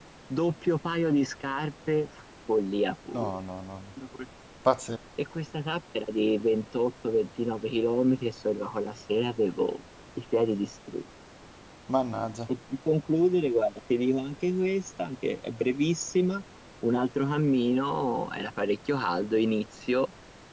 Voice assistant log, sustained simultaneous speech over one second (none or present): none